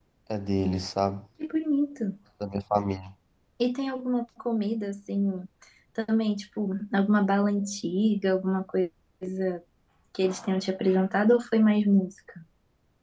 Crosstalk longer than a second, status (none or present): none